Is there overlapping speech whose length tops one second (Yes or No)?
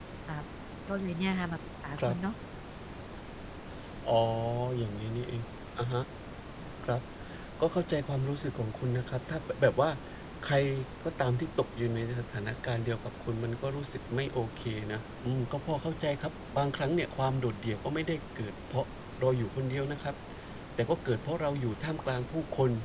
No